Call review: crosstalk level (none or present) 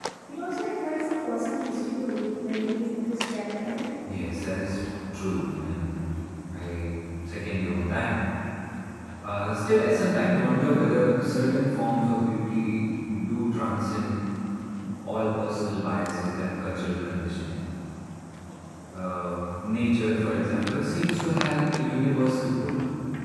none